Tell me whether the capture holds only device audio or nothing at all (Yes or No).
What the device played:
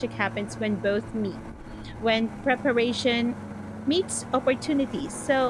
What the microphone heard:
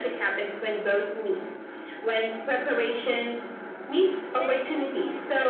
No